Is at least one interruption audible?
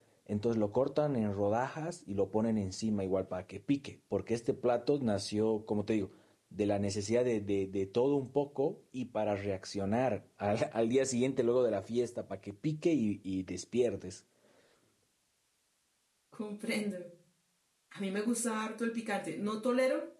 No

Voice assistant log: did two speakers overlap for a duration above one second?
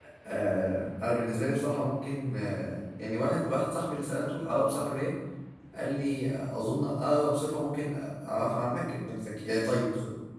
No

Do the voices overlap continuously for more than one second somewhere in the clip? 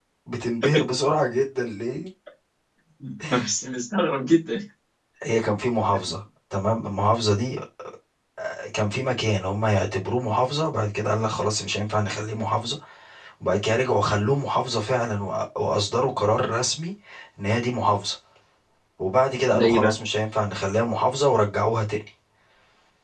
No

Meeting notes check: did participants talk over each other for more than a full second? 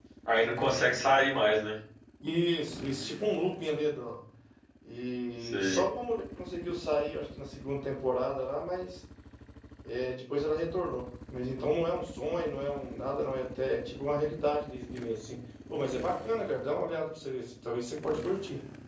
No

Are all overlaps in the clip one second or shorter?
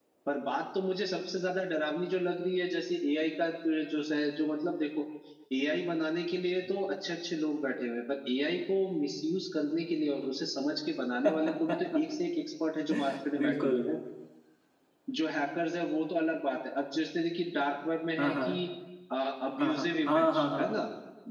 No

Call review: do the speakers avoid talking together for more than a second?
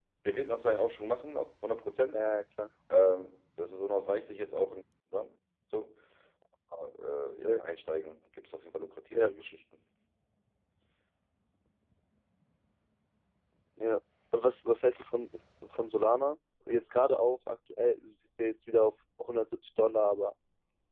Yes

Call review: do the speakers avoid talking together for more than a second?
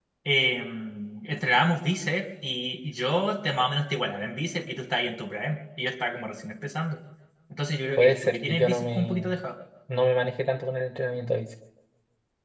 No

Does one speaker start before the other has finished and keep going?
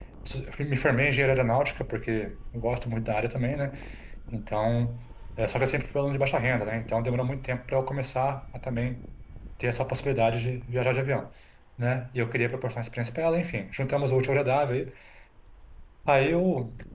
No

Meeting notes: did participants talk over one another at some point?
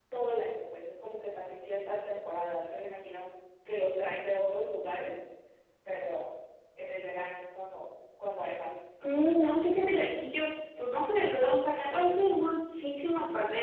No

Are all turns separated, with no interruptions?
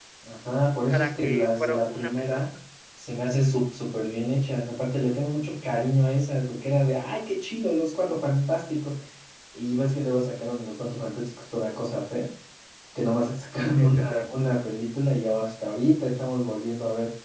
No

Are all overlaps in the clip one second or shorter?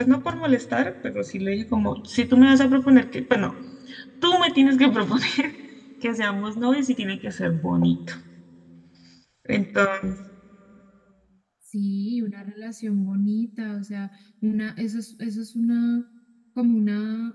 Yes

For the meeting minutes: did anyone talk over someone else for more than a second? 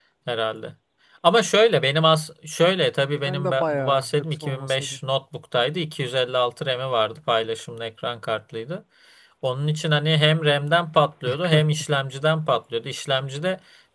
Yes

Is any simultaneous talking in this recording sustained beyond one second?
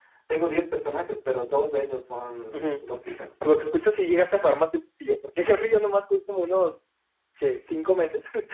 No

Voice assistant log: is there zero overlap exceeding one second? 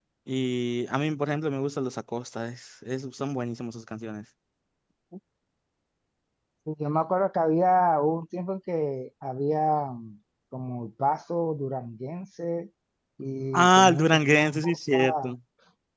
No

